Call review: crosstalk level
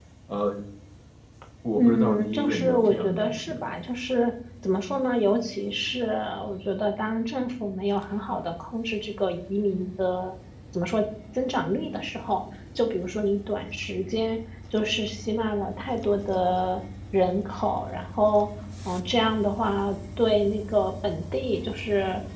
present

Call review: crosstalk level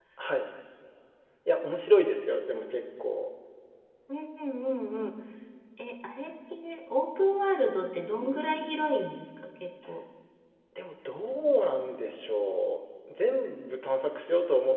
none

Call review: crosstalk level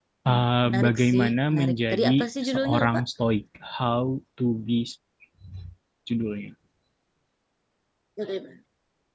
present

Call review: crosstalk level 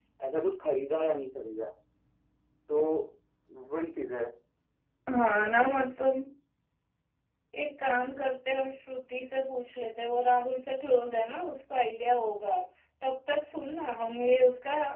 none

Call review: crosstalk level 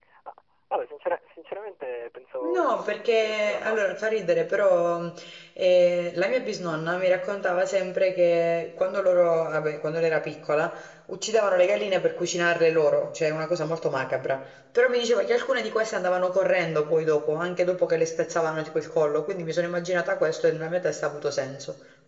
present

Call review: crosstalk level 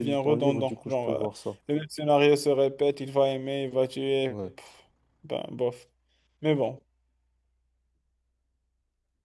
present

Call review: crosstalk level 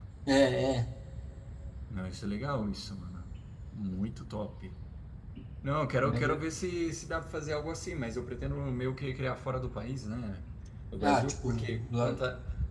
present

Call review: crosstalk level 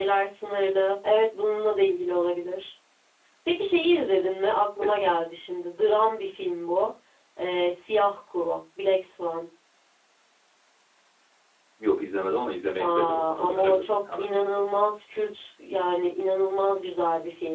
present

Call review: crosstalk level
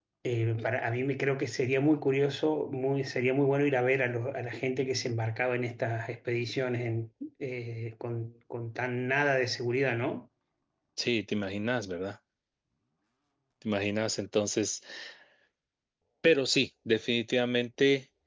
none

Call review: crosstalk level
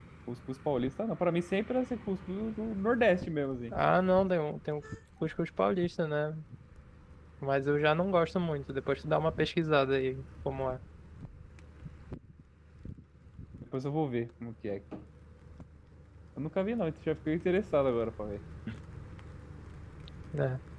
none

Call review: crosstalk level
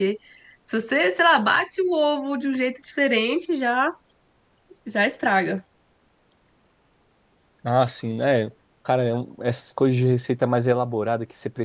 none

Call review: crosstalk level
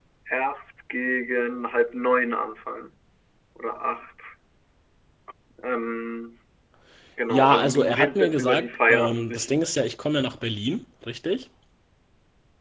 present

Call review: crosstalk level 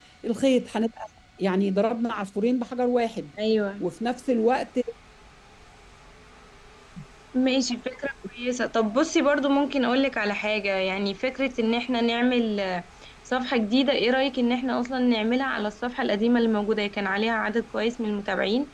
none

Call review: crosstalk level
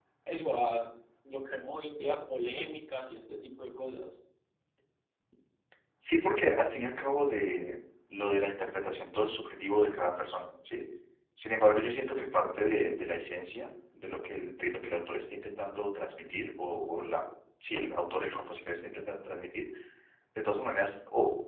none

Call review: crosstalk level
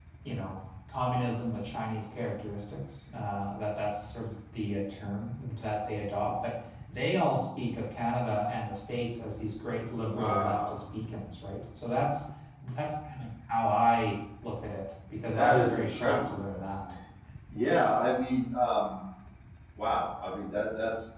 present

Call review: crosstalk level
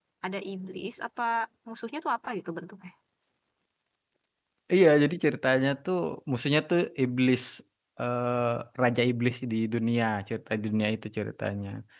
none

